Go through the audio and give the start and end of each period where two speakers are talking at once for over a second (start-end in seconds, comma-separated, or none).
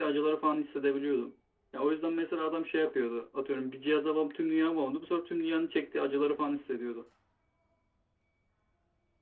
none